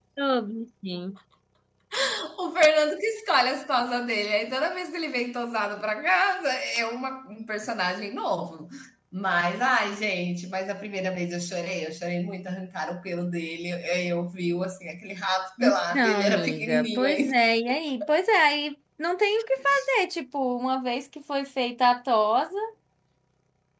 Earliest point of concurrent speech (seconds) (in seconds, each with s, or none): 15.6 s